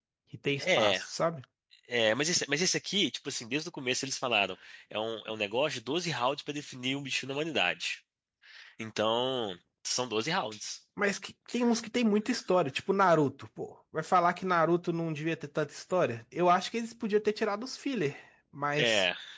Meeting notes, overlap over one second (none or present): none